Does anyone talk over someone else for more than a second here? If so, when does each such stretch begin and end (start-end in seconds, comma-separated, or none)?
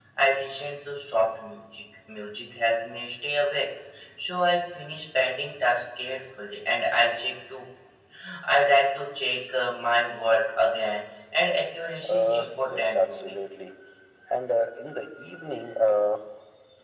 12.1-13.4